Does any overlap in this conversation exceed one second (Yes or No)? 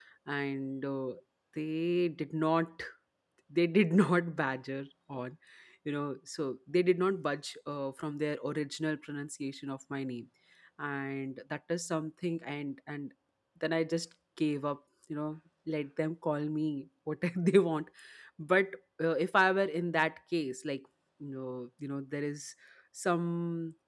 No